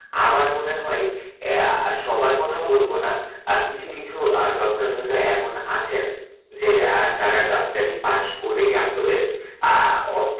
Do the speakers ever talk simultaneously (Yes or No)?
No